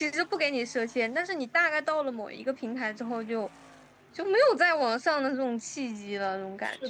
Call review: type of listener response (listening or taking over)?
taking over